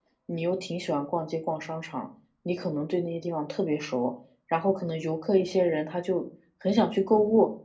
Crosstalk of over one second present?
No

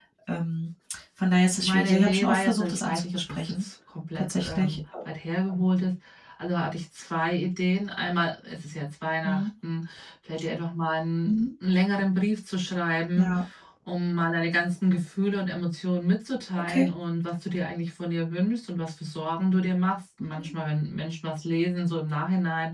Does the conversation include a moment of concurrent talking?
Yes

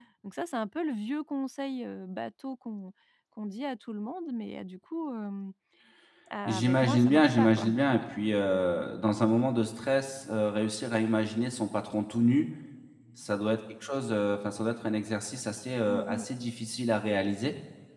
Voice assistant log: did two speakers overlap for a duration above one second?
Yes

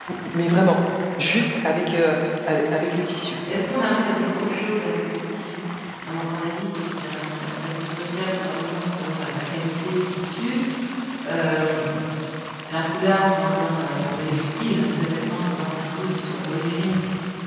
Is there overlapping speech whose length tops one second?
No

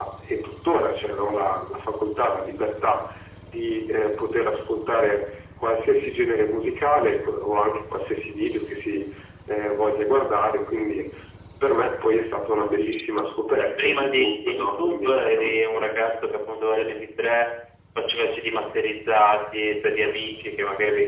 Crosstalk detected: Yes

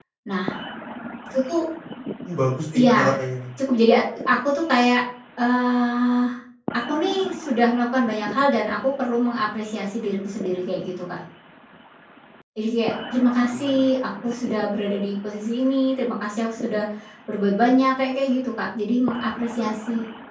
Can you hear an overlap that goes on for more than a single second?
No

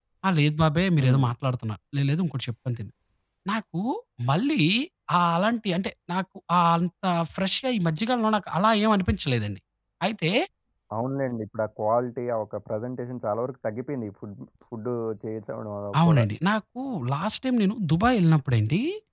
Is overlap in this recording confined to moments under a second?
Yes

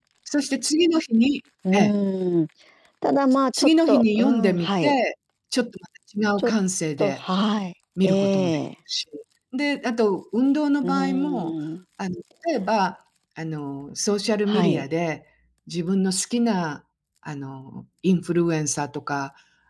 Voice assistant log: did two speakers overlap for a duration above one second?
Yes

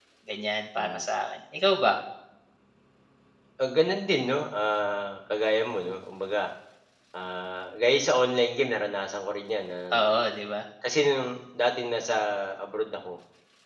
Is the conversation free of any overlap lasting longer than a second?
Yes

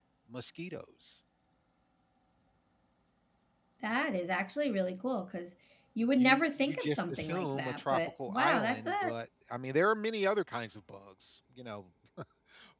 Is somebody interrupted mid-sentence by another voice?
Yes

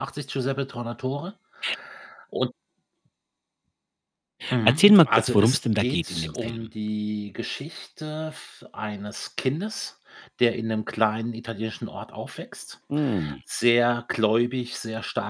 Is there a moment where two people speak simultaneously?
Yes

